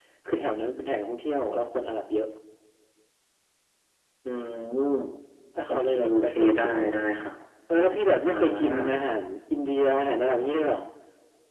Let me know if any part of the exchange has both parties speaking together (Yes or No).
Yes